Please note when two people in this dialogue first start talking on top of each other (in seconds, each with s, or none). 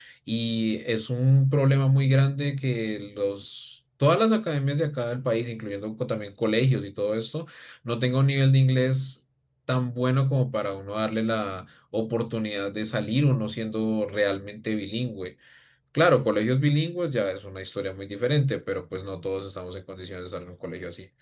none